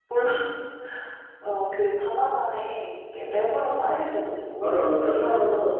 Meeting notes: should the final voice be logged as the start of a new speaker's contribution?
Yes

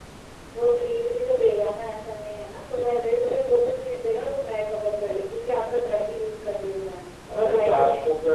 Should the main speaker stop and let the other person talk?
Yes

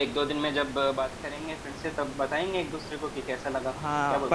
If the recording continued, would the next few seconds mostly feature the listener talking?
Yes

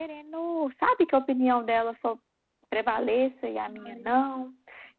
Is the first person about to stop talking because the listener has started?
No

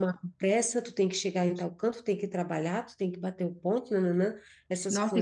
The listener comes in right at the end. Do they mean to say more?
Yes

